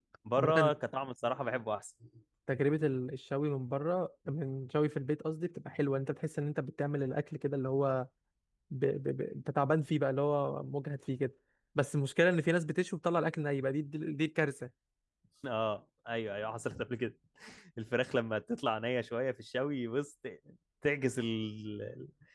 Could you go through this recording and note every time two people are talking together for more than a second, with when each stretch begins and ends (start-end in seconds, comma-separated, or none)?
none